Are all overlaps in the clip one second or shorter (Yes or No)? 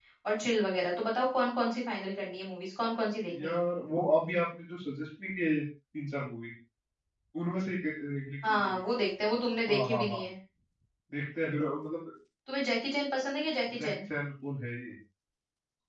Yes